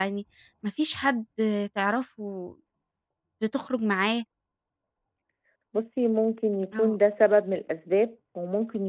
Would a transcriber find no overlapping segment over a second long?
Yes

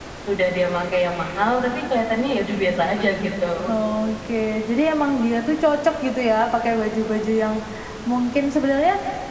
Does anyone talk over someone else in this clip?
No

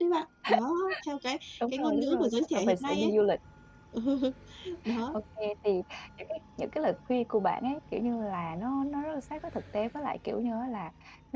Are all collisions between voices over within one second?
No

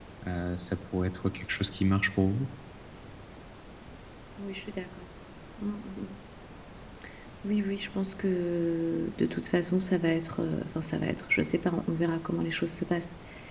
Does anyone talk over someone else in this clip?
No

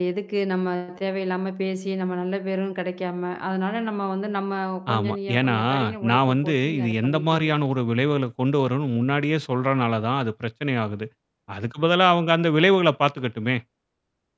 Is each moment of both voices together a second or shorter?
No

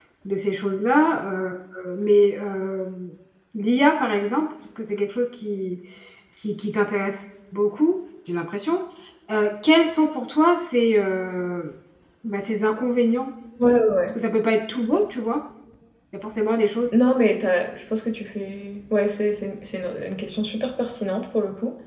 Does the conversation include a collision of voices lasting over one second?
No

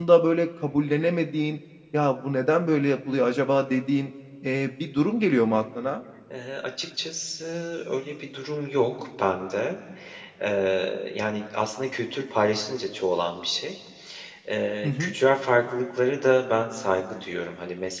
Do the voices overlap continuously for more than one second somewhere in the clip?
No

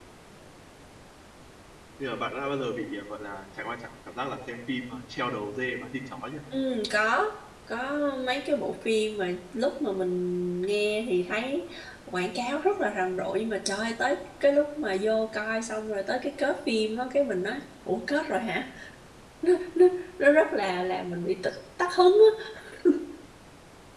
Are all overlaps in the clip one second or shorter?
Yes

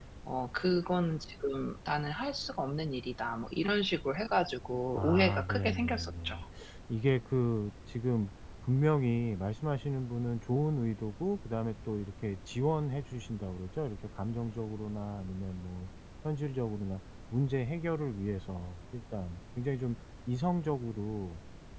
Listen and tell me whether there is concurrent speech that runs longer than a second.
Yes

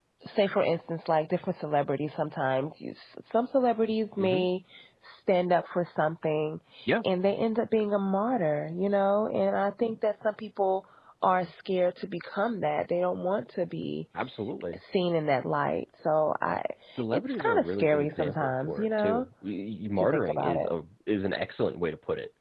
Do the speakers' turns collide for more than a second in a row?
Yes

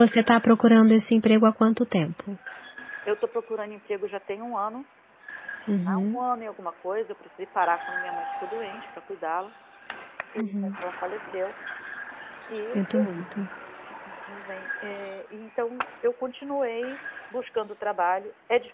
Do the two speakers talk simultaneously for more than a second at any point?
No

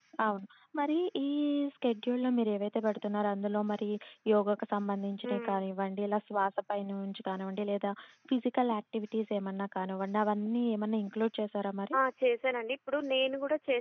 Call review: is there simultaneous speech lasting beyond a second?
No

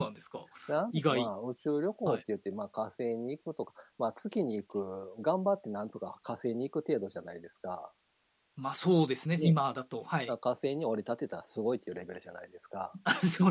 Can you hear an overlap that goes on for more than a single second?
No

